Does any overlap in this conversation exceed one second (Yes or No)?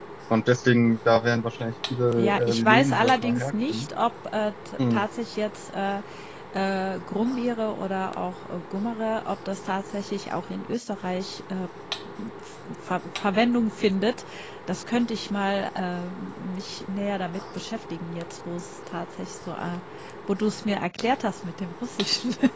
Yes